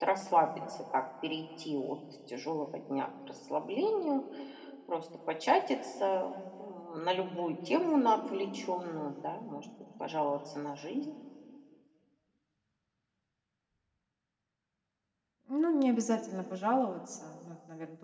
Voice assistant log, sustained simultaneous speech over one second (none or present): none